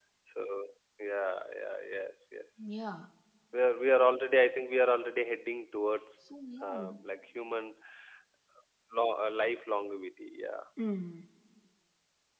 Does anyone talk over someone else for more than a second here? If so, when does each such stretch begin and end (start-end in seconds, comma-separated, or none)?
none